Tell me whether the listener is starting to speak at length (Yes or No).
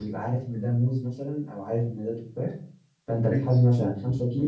No